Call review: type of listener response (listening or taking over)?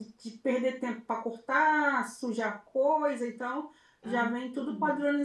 listening